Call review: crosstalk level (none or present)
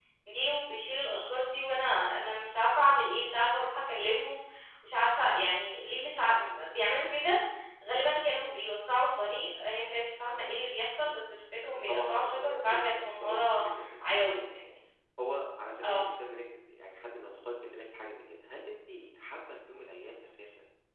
present